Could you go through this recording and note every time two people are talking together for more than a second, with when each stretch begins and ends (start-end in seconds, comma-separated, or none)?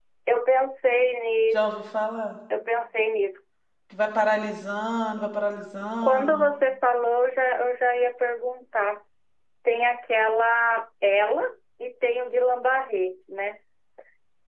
none